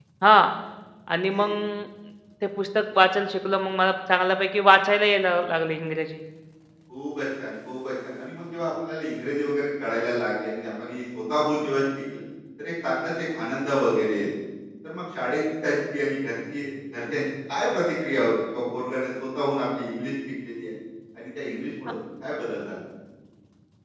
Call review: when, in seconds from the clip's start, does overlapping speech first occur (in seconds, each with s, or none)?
none